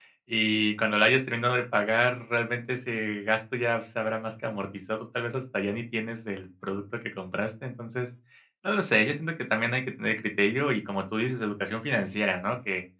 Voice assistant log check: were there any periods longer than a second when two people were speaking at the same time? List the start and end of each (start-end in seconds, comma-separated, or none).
none